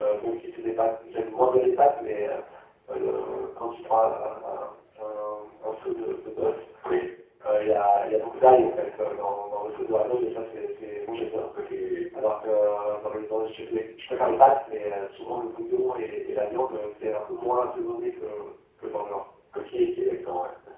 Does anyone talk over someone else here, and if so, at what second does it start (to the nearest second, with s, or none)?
none